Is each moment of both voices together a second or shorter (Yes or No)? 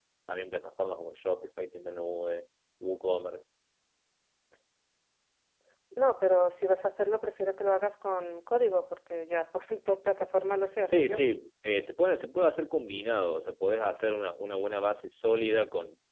Yes